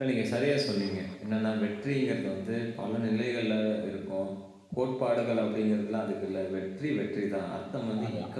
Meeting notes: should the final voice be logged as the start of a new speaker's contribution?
No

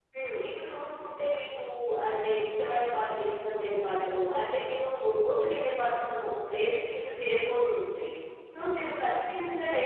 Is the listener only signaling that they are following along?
Yes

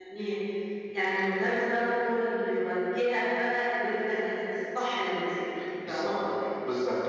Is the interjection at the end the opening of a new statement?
Yes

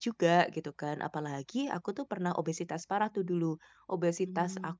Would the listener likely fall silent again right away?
Yes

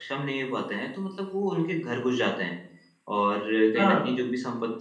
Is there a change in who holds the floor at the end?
No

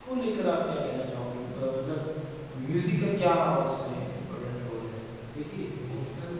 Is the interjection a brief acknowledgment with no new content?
No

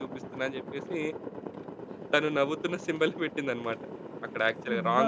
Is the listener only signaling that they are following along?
Yes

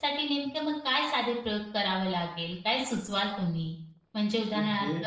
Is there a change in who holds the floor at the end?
No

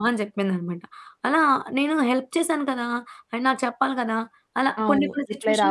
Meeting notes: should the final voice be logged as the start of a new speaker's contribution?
Yes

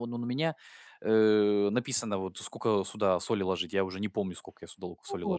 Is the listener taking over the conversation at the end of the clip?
Yes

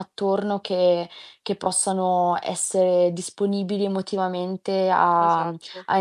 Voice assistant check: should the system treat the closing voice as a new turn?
No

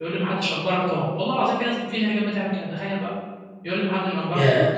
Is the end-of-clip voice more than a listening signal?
Yes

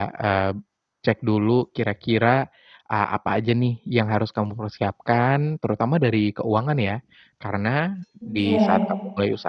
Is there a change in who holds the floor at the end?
No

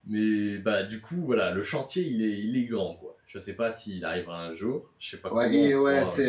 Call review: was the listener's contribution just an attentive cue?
No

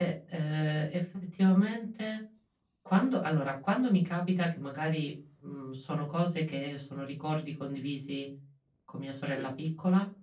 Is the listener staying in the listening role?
Yes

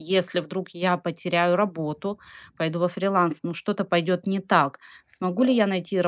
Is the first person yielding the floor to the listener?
No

